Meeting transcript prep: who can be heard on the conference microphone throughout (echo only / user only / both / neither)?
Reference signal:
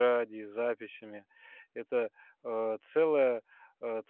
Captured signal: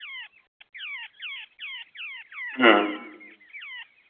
user only